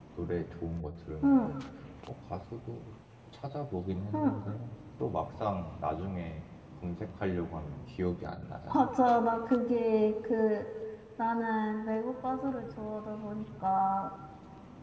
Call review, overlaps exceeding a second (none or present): none